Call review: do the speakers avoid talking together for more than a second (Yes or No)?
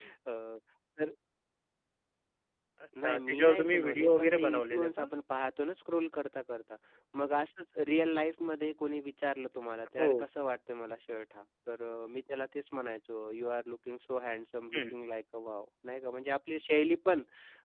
No